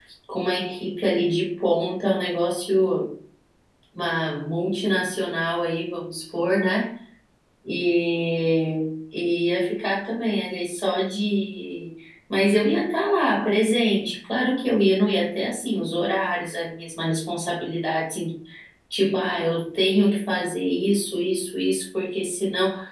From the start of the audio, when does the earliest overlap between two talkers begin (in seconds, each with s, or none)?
none